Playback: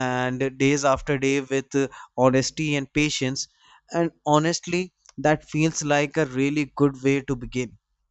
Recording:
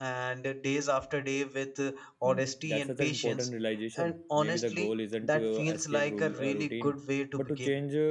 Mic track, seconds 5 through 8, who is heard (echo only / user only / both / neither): both